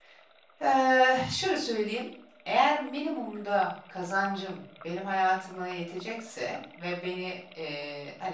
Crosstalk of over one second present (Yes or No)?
No